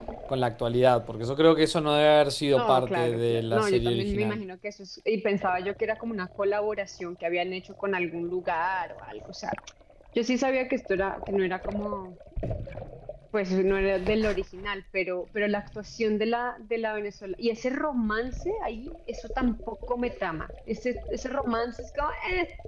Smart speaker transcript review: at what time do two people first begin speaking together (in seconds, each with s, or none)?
2.5 s